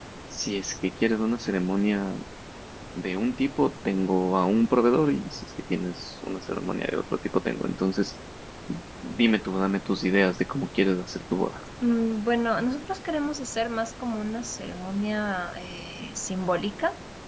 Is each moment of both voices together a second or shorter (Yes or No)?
Yes